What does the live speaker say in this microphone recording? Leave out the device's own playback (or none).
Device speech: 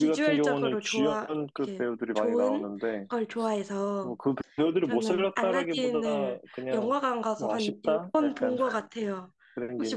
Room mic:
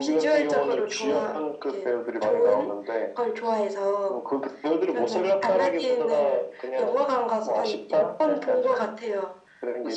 none